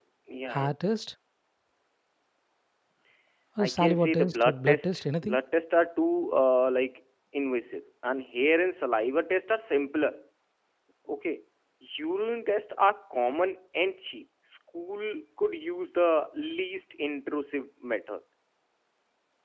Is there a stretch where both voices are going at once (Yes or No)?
Yes